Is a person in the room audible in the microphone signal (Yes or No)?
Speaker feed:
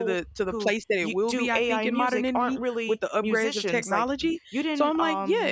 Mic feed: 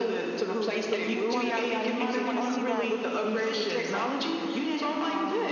Yes